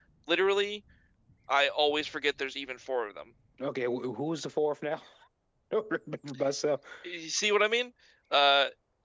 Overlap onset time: none

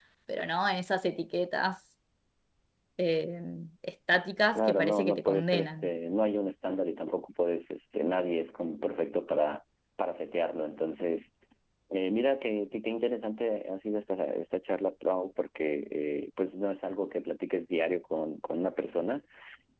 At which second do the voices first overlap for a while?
4.5 s

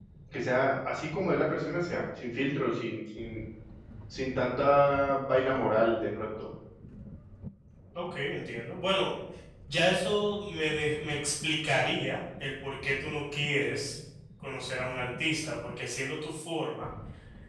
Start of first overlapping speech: none

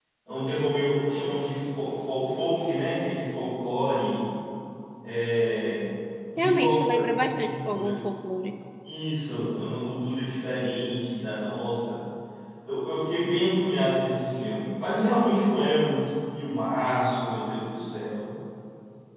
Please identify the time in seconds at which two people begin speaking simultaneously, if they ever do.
6.4 s

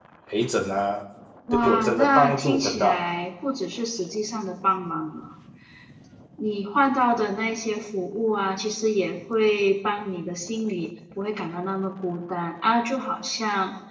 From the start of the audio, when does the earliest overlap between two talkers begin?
1.6 s

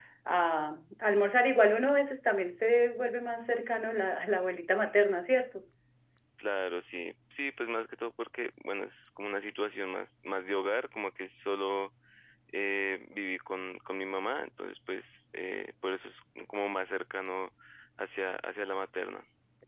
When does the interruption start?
none

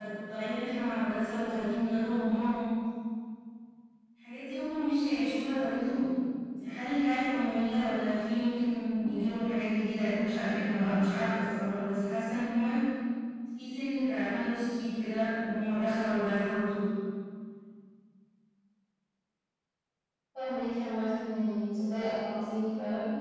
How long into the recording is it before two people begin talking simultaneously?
none

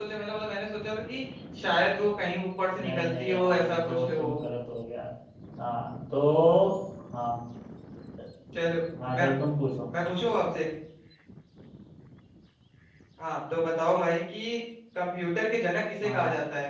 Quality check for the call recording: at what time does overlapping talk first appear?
2.8 s

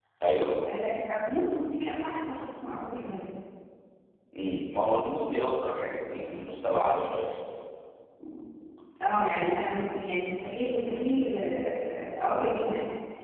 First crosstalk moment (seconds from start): none

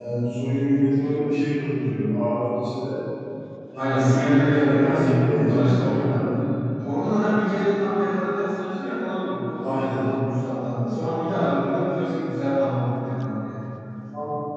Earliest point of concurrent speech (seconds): 3.8 s

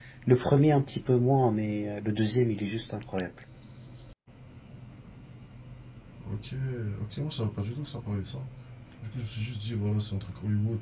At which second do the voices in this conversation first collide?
none

